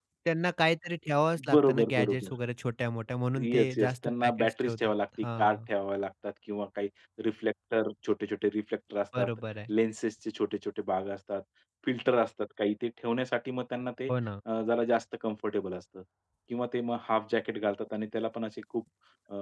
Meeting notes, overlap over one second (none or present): present